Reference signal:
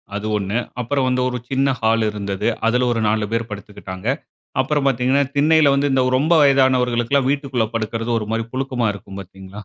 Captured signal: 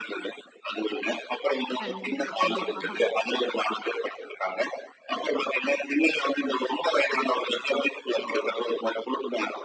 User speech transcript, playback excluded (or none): கண்டிப்பா, கண்டிப்பா.